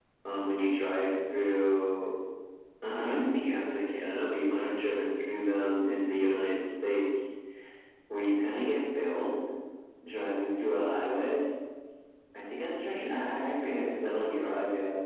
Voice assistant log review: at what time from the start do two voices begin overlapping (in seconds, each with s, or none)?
none